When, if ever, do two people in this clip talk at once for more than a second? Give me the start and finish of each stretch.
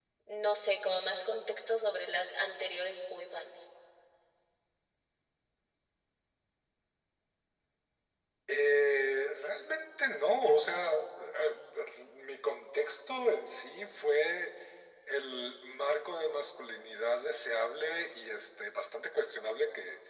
none

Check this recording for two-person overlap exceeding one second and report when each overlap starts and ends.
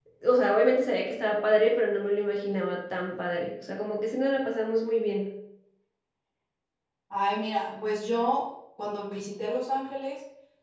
none

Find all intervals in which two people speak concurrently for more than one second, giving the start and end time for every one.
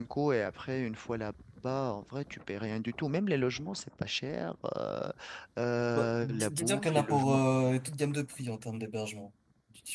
6.0-7.4

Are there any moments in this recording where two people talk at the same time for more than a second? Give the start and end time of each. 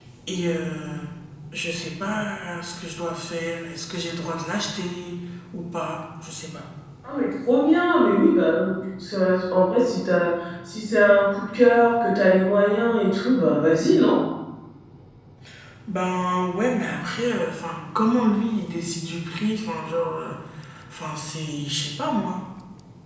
none

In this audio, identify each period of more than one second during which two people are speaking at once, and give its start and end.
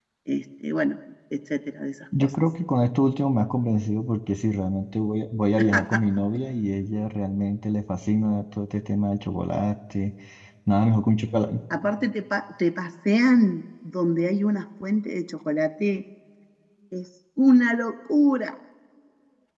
none

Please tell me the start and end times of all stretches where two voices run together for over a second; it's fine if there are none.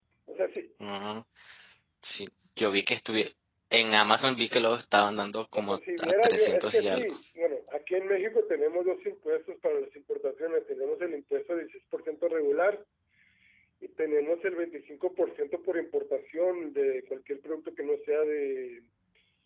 5.5-7.0

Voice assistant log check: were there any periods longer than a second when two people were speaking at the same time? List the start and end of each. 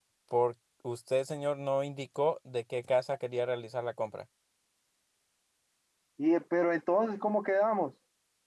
none

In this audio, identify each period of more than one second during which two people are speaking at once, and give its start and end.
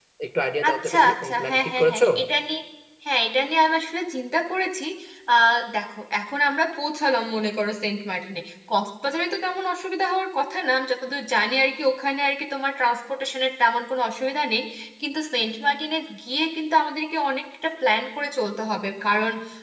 0.7-2.1

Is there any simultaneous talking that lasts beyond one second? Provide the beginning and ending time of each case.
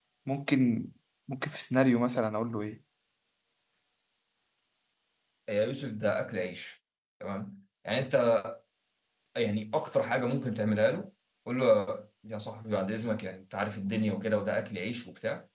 none

